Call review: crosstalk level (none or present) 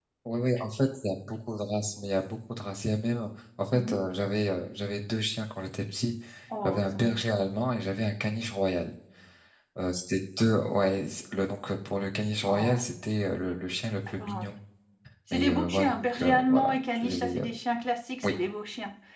present